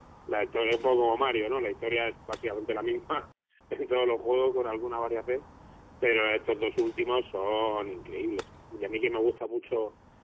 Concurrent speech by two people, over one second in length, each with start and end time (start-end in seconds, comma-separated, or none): none